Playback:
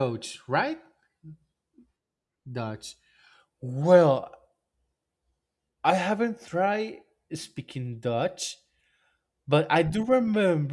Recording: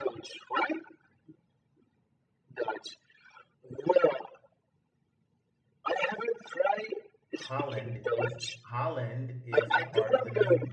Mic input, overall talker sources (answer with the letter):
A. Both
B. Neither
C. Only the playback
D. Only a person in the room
A